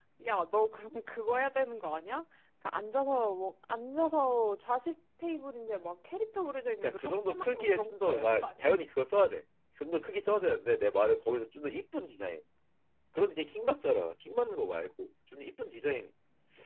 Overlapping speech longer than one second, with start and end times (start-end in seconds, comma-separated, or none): 6.8-8.7